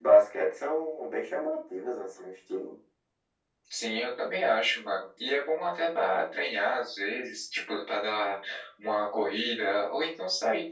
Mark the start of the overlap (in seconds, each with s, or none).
none